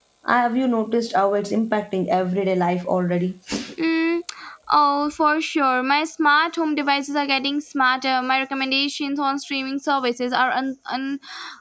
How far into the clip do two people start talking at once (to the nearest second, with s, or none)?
none